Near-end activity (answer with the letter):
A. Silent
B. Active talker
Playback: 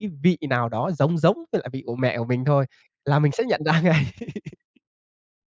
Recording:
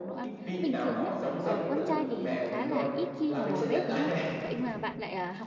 B